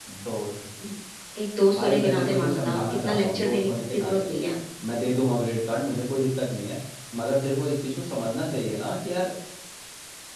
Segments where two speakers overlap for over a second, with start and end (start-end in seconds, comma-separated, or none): 1.7-4.2